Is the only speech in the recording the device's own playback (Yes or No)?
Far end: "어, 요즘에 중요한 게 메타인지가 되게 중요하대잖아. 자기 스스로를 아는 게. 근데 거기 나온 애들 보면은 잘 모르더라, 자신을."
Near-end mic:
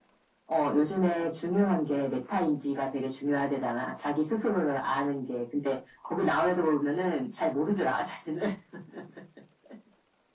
Yes